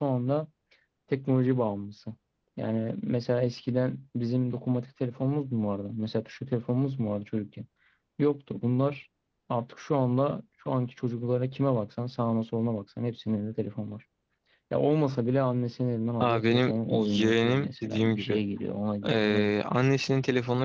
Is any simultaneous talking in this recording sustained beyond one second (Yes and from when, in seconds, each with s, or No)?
Yes, from 16.2 s